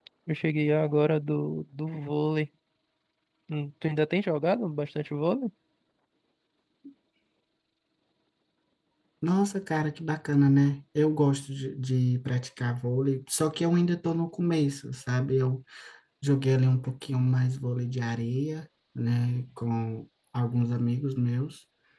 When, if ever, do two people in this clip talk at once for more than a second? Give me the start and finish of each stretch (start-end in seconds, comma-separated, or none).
none